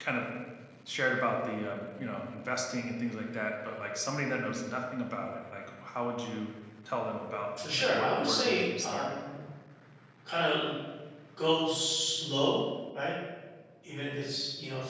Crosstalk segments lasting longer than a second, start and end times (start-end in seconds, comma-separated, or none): 7.8-9.2